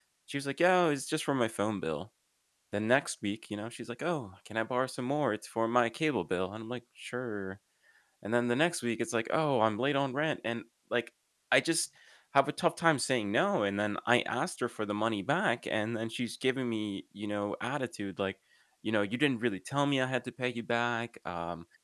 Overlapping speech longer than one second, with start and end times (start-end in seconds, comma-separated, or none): none